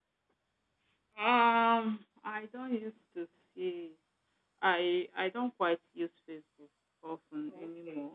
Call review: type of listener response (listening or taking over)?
taking over